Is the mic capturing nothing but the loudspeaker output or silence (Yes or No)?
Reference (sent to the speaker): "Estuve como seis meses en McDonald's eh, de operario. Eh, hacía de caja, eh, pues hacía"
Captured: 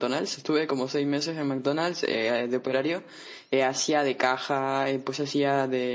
Yes